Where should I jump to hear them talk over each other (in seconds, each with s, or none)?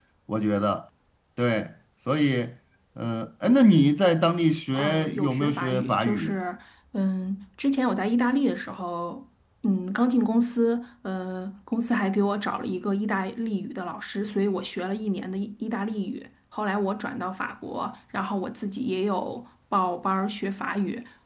4.7 s